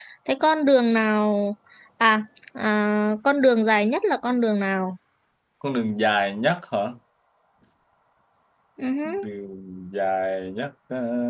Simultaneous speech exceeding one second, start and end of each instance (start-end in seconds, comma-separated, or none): none